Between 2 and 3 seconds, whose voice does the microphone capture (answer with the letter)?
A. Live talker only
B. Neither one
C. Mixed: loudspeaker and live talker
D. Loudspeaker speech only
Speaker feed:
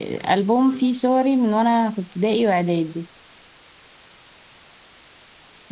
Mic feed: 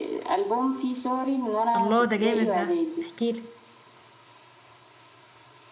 C